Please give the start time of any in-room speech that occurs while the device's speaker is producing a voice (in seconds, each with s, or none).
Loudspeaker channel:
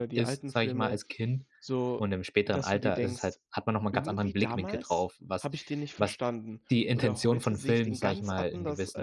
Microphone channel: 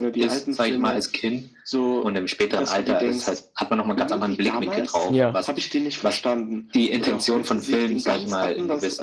5.1 s